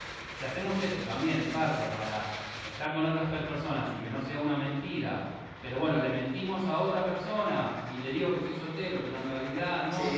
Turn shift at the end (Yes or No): Yes